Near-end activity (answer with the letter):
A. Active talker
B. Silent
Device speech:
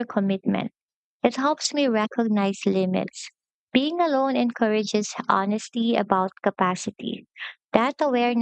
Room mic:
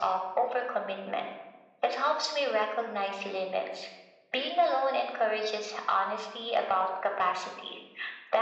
B